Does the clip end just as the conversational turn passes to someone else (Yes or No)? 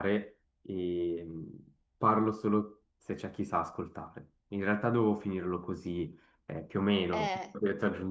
No